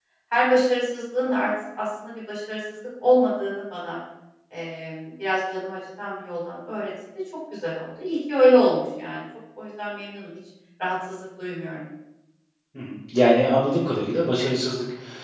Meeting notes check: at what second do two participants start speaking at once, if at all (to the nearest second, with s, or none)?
none